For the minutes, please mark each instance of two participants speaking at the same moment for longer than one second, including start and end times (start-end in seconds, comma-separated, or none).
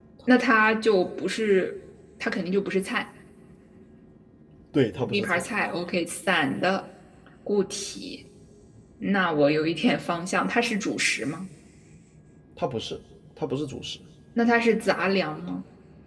none